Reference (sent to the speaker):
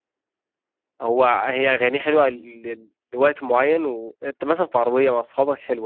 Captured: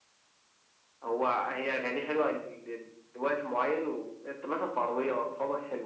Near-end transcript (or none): none